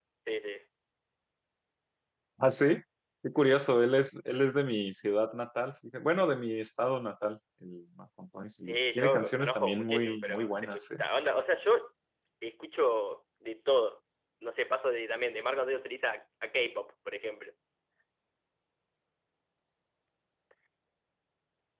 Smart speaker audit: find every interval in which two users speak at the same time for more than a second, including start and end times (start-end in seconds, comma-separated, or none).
8.6-10.8